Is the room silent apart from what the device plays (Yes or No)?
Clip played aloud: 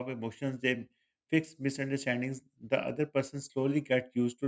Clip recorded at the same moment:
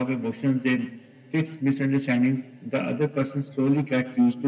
Yes